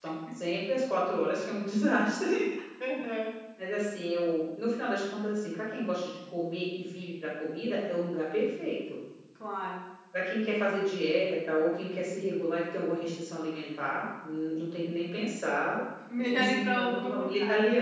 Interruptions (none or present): present